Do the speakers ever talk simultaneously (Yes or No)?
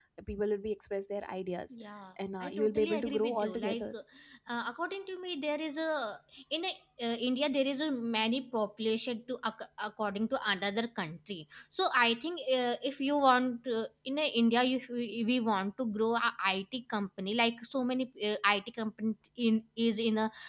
Yes